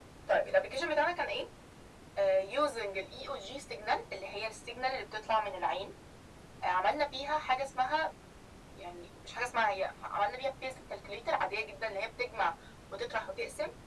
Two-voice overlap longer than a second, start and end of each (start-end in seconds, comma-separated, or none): none